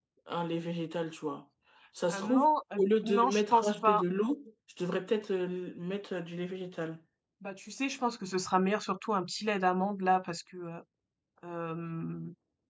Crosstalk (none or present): present